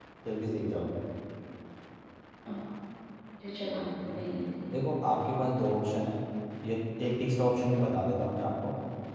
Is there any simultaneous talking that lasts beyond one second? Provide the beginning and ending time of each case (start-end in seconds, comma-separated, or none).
none